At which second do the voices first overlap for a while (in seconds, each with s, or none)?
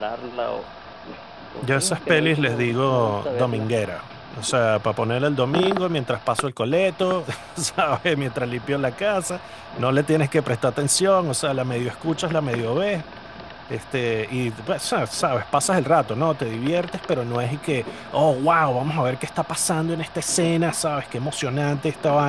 1.6 s